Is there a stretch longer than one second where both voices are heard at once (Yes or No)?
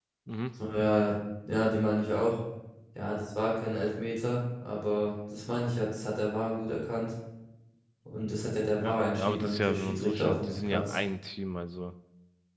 Yes